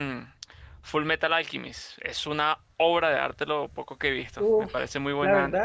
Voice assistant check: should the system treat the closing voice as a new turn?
Yes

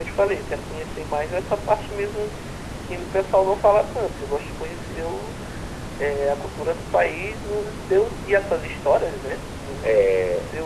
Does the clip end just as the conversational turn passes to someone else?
No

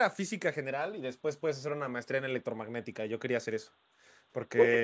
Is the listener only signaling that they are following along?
No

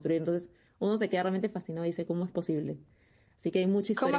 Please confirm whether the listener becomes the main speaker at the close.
Yes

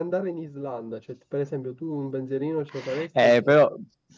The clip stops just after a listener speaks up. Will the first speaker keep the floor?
No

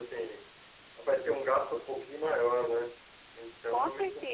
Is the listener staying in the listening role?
No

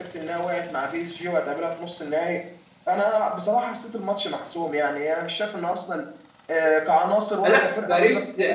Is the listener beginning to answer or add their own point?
Yes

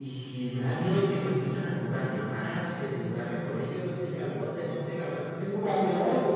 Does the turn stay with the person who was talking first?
No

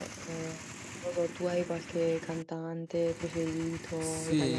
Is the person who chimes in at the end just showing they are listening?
No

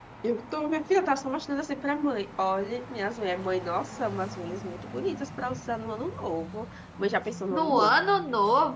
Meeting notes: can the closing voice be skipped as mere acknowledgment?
No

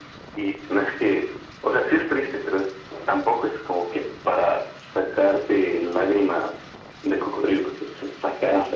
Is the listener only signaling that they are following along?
No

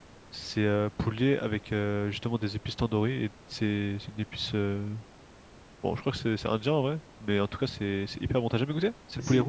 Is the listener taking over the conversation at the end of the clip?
Yes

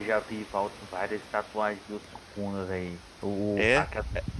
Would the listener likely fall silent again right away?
Yes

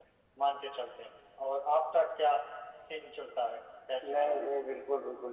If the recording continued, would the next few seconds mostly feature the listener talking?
Yes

